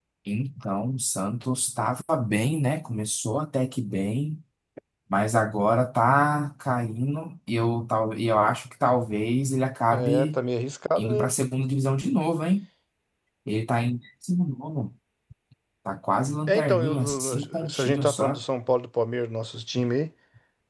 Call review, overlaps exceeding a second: present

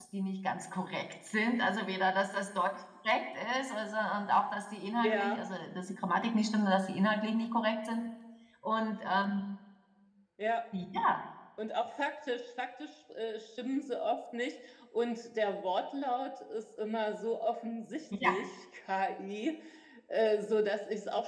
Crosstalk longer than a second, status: none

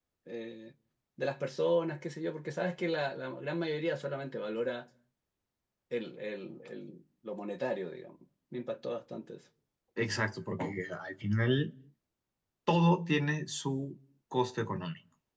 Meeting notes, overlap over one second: none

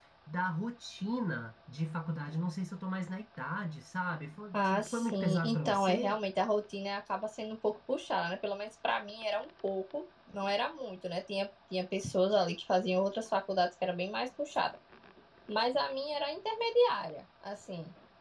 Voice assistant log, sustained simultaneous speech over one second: present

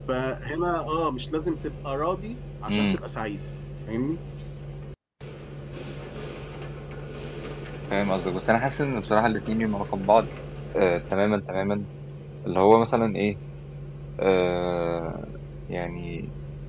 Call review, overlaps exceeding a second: none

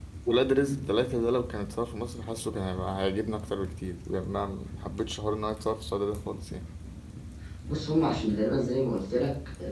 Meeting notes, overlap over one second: none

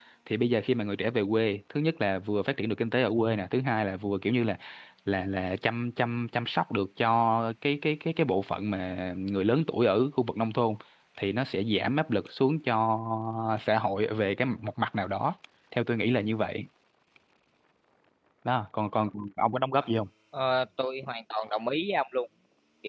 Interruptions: none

